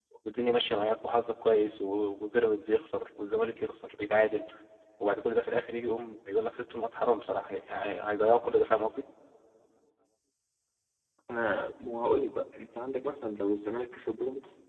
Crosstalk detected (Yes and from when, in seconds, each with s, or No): No